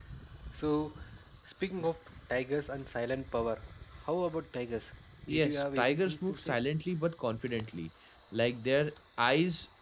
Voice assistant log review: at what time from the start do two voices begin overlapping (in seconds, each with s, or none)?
5.3 s